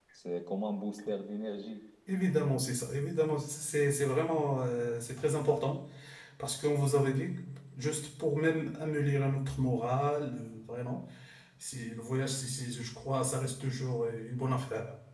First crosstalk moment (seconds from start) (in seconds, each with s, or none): none